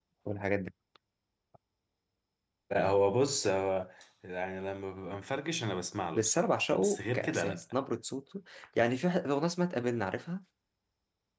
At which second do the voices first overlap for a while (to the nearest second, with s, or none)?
6 s